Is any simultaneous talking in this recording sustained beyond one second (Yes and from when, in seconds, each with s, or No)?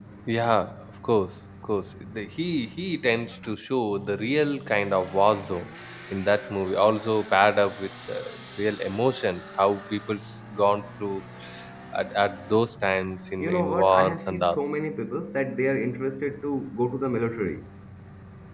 Yes, from 13.4 s